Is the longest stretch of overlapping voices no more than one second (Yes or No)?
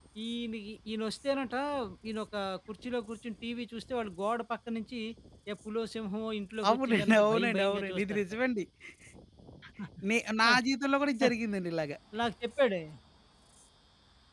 No